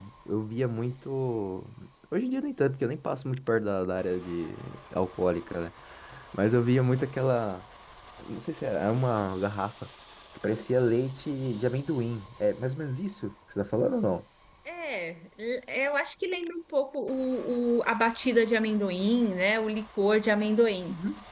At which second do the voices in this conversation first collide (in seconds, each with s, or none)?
none